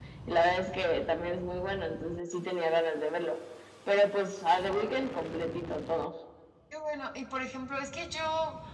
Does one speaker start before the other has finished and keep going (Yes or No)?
No